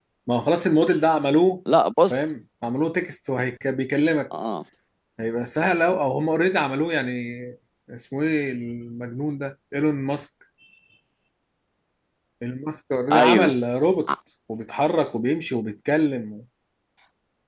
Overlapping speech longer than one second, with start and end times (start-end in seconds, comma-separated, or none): none